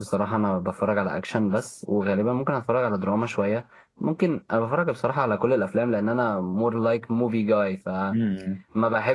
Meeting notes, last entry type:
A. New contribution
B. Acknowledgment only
B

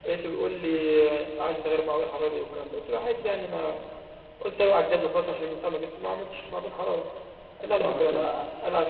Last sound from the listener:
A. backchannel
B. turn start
A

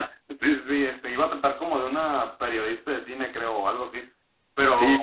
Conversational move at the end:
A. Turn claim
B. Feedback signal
A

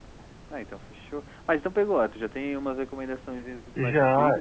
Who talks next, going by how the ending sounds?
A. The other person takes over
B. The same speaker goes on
A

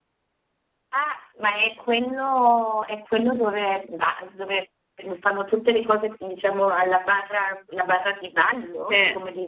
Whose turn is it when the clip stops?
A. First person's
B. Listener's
B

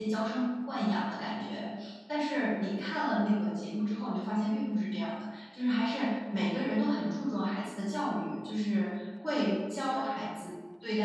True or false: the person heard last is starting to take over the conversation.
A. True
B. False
B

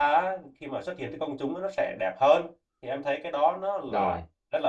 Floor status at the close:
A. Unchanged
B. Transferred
A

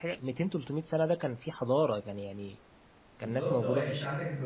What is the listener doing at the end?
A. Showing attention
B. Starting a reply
B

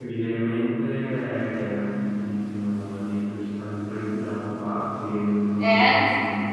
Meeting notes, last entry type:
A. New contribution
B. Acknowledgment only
B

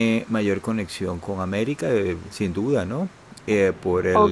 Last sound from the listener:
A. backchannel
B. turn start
B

